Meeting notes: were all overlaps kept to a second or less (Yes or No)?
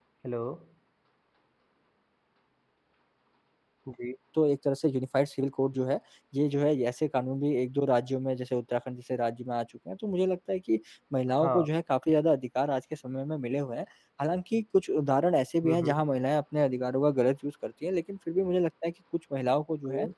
Yes